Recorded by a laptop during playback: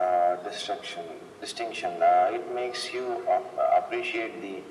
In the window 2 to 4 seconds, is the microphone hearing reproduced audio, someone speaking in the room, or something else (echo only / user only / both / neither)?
echo only